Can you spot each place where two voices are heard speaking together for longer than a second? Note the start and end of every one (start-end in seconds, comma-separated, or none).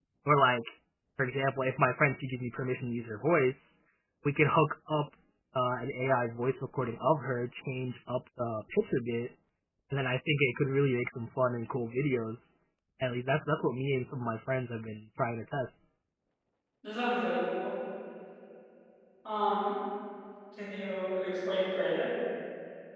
none